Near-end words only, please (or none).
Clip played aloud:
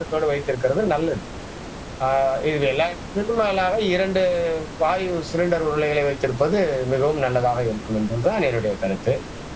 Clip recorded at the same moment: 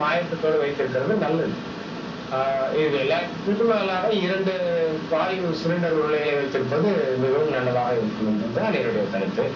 none